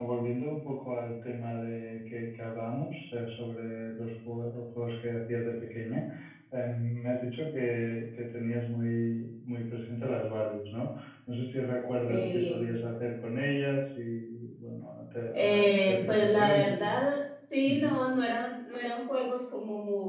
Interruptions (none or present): present